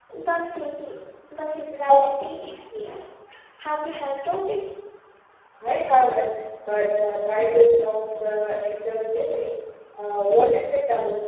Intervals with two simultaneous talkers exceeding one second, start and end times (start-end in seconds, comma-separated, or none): none